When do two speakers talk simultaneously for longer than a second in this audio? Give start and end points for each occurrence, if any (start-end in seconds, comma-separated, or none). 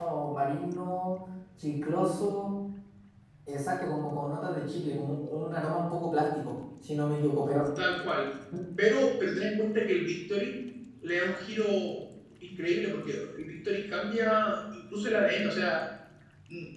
none